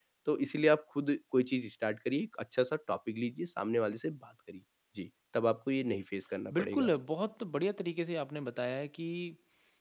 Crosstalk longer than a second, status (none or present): none